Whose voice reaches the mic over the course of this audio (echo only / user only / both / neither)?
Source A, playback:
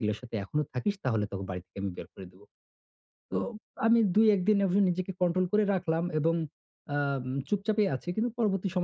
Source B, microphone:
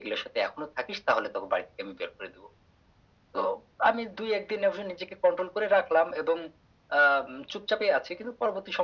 echo only